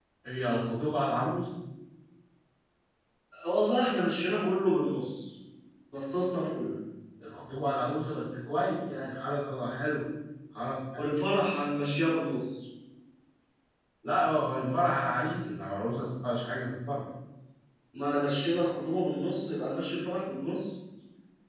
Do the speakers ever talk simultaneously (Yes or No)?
No